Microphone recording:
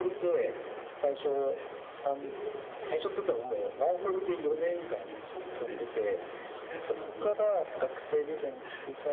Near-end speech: present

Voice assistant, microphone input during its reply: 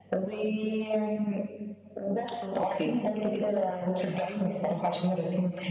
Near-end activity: present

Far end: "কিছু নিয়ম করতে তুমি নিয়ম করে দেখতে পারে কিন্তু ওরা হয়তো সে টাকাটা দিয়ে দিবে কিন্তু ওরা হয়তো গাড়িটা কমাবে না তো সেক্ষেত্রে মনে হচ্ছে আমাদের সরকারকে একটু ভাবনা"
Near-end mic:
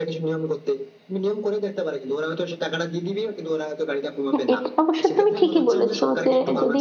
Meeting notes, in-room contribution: present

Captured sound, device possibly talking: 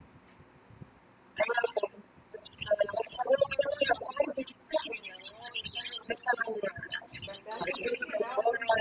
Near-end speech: present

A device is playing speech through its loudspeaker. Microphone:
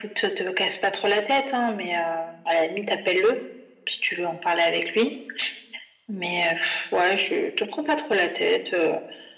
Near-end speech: none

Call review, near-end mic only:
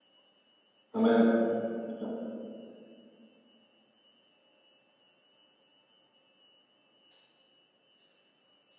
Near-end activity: present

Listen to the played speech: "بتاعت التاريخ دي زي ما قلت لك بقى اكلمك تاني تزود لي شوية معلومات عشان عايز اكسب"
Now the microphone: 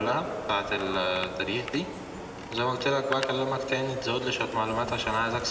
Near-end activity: none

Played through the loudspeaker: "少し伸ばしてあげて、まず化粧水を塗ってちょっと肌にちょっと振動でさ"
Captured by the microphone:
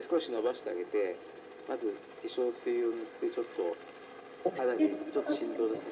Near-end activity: present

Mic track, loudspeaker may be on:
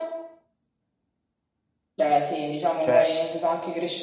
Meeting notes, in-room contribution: present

